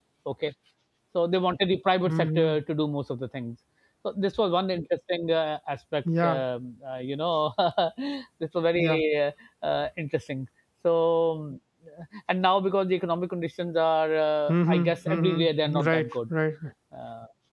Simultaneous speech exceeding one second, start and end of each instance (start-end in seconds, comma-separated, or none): 14.5-16.1